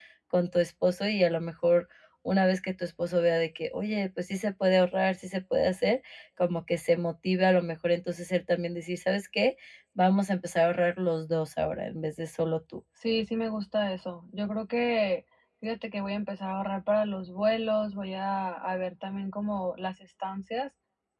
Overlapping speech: No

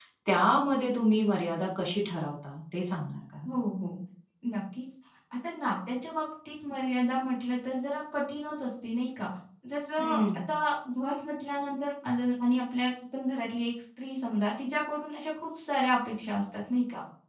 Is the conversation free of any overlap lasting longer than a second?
Yes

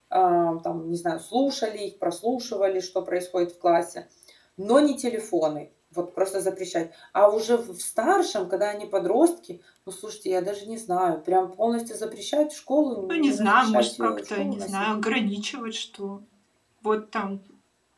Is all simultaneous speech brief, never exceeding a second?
No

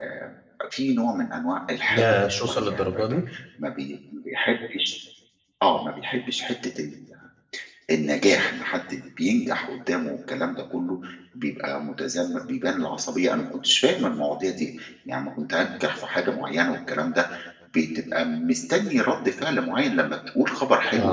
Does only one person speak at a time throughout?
No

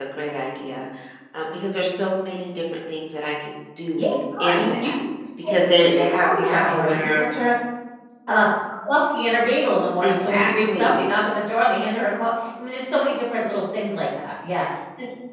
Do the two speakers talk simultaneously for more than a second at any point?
Yes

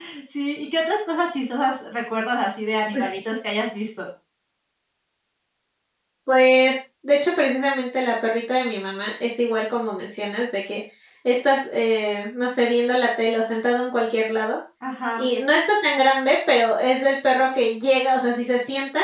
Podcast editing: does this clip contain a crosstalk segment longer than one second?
No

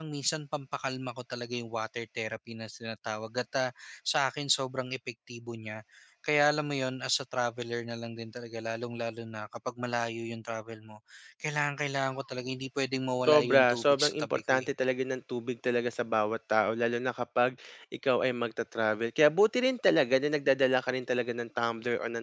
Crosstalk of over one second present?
Yes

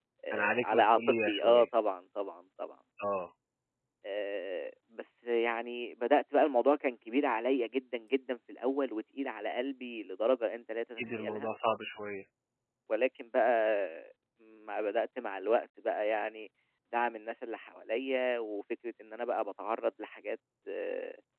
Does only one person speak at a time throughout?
No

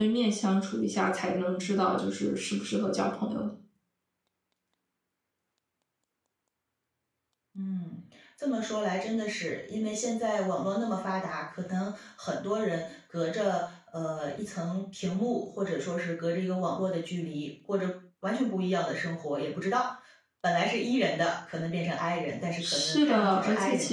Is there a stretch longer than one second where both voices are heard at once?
Yes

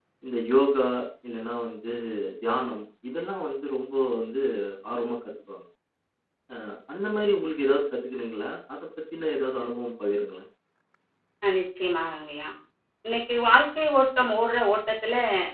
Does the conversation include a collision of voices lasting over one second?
No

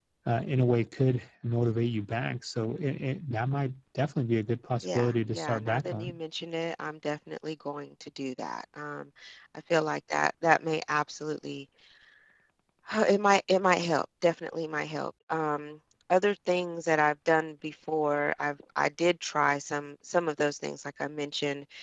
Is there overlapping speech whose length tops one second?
Yes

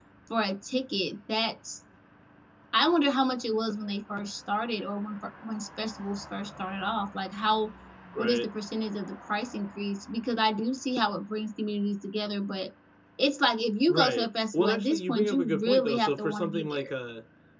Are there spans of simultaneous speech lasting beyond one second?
Yes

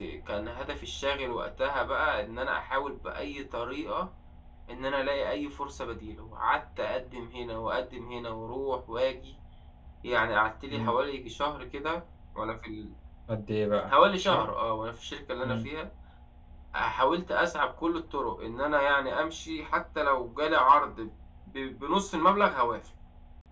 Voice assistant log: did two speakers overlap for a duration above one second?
No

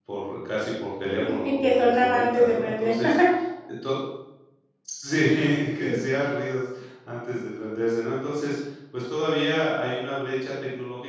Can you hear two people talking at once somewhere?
Yes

